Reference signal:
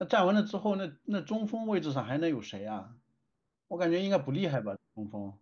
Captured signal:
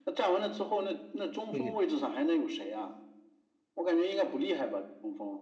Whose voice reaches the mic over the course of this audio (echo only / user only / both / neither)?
both